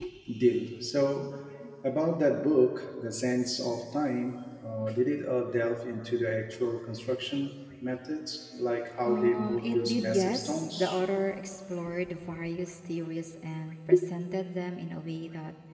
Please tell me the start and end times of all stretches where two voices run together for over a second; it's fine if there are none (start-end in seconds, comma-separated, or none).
9.1-11.0